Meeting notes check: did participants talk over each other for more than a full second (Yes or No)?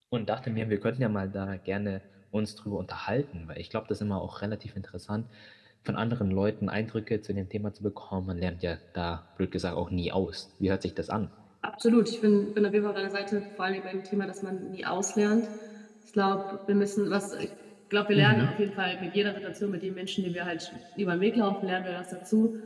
No